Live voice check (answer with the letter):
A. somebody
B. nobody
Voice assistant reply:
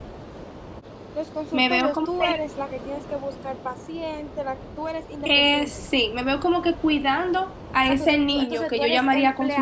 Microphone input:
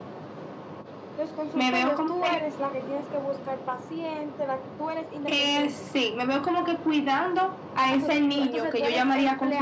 B